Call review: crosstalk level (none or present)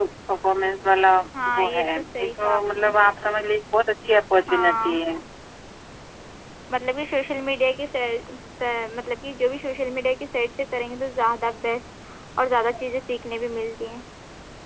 present